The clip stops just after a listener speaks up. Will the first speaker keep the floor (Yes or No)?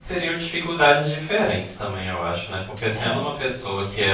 Yes